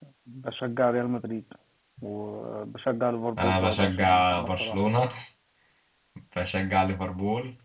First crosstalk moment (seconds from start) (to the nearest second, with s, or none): 3 s